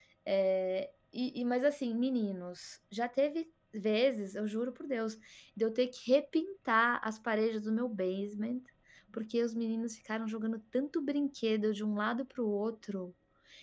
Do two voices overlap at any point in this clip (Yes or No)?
No